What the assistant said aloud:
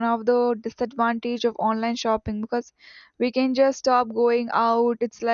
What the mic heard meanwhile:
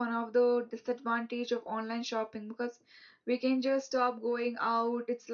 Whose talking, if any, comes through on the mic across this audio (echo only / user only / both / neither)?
echo only